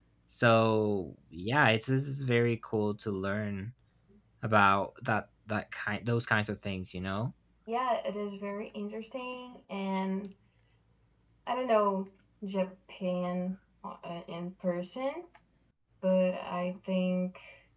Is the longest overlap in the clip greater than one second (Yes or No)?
No